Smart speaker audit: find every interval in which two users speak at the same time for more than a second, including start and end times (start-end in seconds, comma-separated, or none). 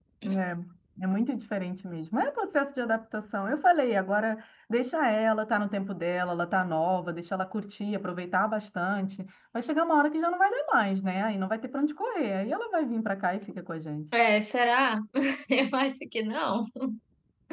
none